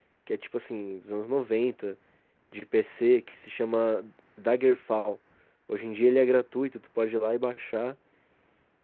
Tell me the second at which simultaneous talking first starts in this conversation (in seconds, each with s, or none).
none